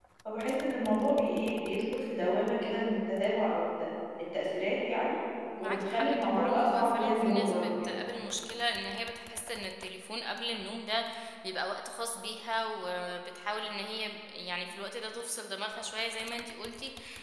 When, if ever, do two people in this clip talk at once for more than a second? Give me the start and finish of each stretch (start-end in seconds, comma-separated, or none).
5.6-8.0